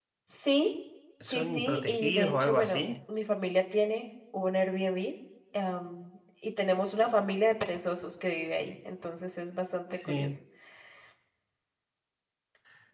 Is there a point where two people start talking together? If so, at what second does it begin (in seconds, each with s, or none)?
1.3 s